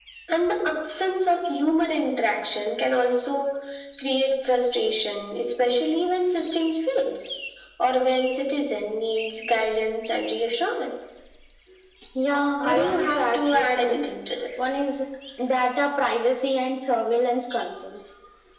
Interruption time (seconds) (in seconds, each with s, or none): 12.6 s